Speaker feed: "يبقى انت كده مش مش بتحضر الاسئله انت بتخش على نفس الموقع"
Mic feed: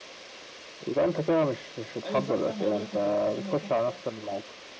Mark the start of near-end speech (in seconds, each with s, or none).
2.0 s